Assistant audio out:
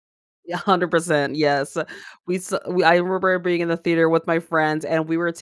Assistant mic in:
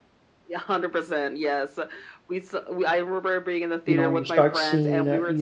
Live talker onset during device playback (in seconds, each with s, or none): 3.8 s